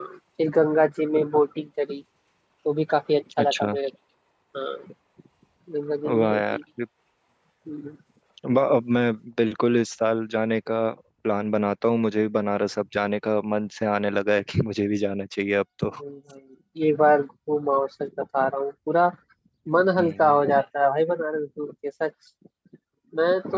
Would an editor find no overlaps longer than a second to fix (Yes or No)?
Yes